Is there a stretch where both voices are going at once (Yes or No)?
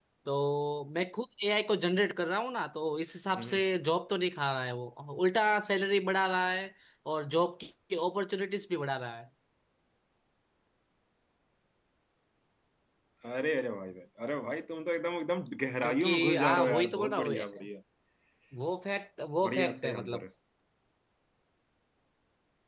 Yes